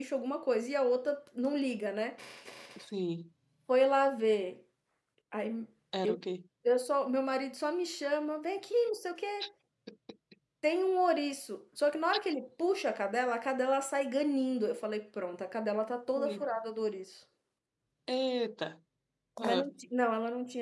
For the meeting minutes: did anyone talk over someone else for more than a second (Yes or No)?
No